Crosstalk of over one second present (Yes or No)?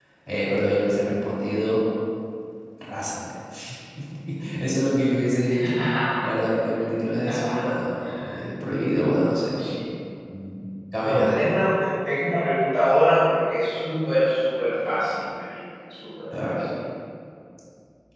No